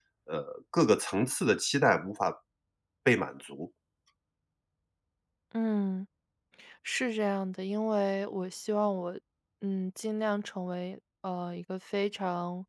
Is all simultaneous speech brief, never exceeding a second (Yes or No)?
Yes